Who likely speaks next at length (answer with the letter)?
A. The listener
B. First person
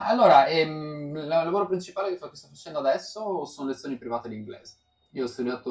B